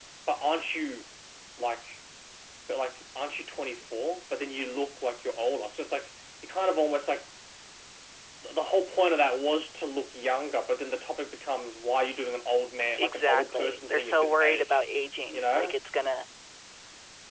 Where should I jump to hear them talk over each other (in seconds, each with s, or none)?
13.0 s